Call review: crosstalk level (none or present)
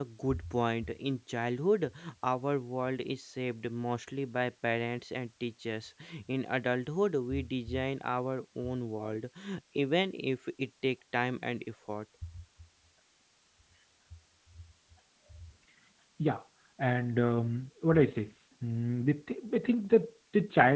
none